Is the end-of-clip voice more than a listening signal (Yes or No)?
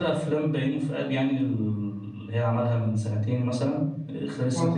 No